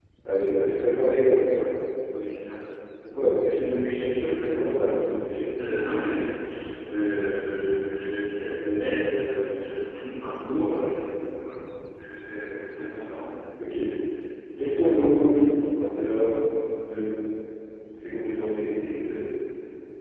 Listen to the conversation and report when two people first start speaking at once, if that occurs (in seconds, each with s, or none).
none